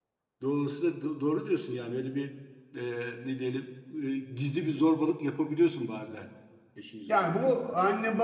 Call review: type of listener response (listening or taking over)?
taking over